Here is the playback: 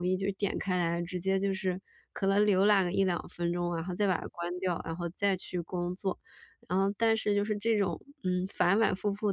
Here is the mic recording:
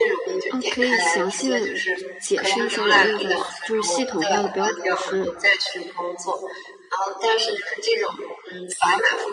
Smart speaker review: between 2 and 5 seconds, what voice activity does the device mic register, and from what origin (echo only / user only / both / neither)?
both